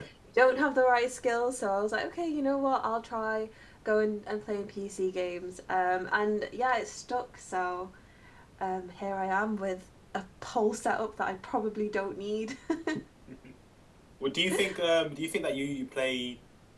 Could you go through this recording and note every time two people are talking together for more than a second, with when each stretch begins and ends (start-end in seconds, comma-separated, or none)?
none